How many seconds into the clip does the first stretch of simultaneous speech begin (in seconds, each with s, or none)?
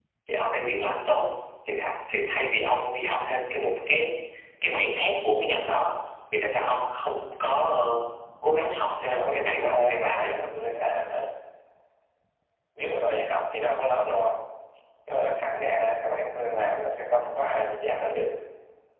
9.2 s